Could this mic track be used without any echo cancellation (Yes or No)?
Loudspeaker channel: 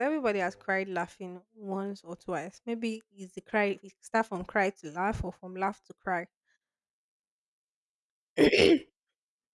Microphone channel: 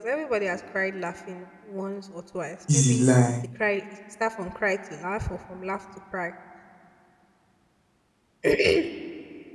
No